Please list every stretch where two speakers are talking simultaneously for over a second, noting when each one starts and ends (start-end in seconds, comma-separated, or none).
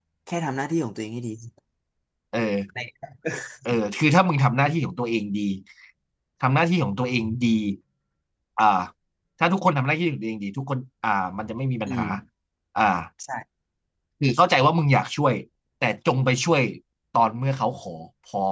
none